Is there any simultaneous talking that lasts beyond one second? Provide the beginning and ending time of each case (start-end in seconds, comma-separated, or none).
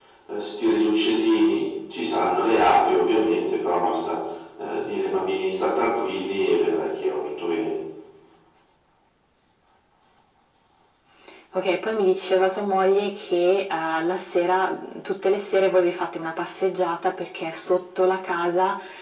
none